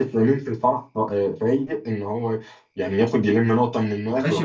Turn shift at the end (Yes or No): Yes